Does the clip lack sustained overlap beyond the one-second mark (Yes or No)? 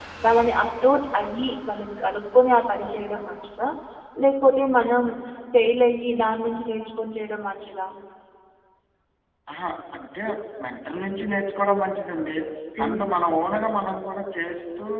Yes